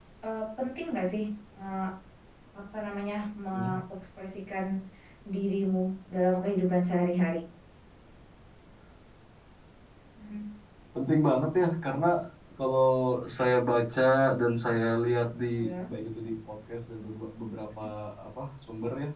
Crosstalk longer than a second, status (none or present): none